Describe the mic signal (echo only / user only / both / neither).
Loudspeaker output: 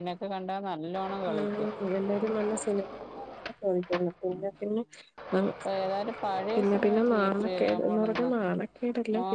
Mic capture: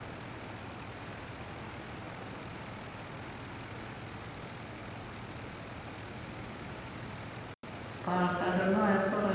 user only